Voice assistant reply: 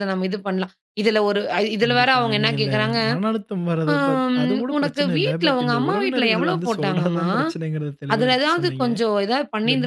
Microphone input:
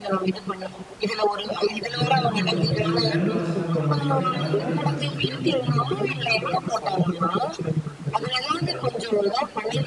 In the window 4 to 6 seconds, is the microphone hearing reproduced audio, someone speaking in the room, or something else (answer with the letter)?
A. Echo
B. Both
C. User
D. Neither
B